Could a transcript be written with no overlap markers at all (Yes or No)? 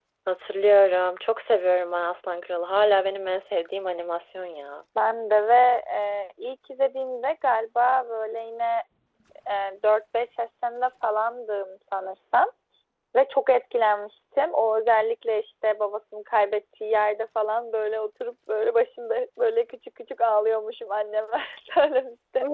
Yes